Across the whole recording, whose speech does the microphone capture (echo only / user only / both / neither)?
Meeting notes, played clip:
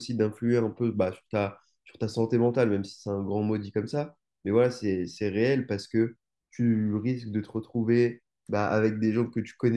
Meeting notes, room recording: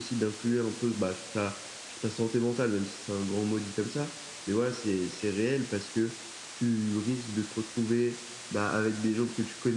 echo only